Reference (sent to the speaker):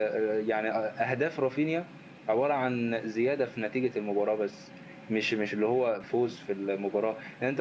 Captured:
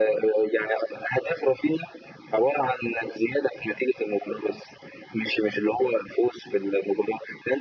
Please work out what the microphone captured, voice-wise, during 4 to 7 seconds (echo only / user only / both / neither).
echo only